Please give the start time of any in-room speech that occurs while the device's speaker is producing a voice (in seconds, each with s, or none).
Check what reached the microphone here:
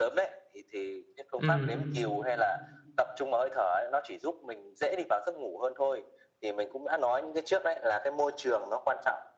1.4 s